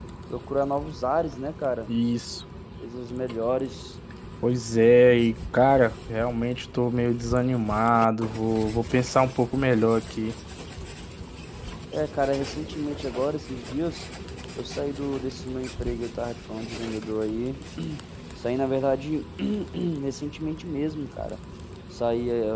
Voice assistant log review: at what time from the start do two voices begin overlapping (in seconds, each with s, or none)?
none